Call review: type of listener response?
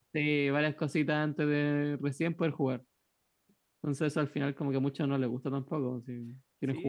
taking over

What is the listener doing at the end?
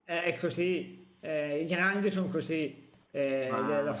listening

